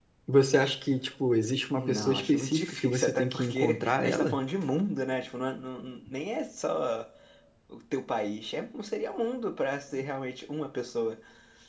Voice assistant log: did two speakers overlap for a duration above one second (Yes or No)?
Yes